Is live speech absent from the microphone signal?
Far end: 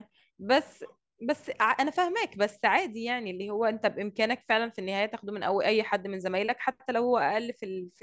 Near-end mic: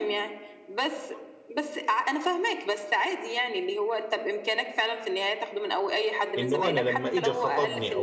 No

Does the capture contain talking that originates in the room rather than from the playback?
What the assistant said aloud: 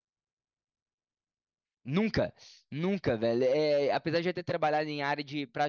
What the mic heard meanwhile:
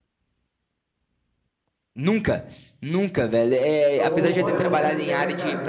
Yes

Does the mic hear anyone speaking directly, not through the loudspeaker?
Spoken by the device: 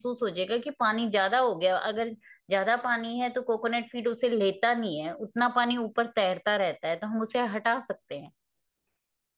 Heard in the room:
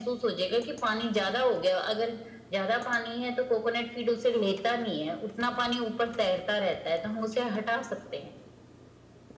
No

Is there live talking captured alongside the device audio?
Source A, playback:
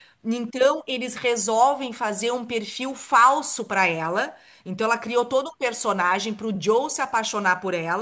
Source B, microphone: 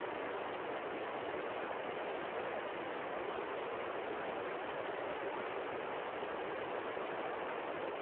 No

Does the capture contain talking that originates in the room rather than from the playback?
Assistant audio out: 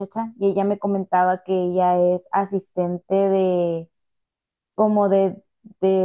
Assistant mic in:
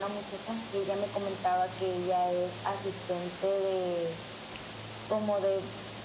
No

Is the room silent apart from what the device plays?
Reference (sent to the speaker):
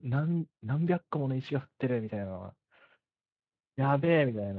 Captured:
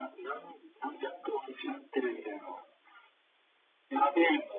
Yes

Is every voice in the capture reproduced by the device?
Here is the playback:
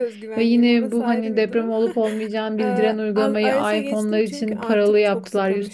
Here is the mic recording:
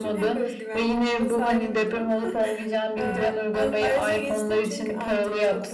Yes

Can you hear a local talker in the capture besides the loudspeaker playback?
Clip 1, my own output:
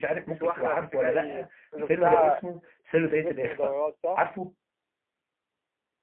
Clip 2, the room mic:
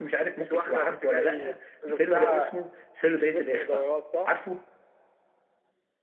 No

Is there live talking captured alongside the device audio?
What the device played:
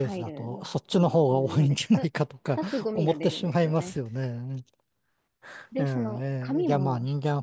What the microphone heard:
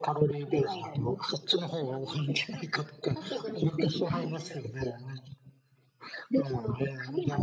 Yes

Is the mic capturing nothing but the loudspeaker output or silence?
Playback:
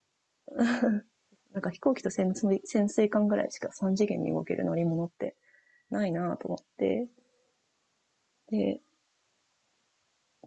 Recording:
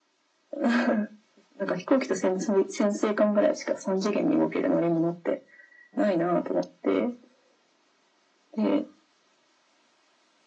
Yes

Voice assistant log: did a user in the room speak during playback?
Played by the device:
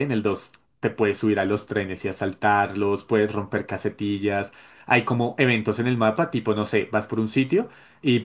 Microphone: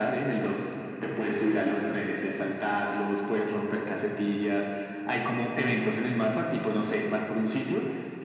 No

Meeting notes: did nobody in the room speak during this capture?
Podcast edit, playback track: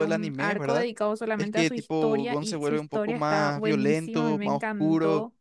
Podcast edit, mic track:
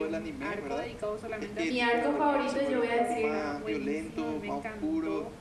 No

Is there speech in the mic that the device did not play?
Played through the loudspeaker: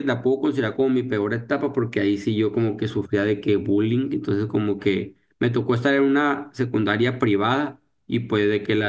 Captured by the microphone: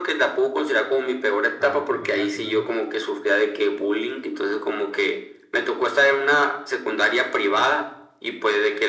Yes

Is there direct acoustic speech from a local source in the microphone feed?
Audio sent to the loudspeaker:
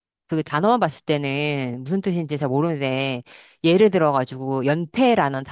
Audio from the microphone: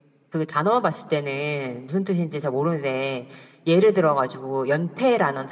No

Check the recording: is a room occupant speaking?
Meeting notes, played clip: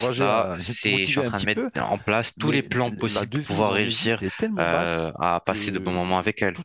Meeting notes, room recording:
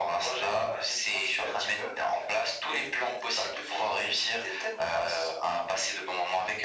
No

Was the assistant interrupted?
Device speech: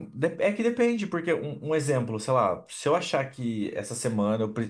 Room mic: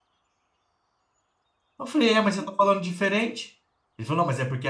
Yes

